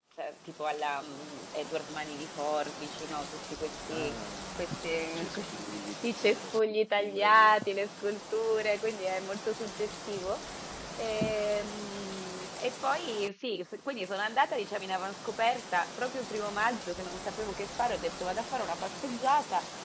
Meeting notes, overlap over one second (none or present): present